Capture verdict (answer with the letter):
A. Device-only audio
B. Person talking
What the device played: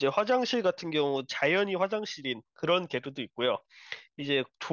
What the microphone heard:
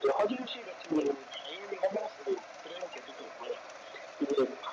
A